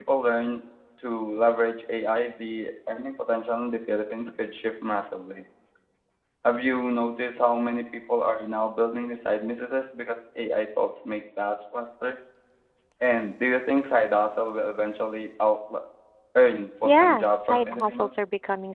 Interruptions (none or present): present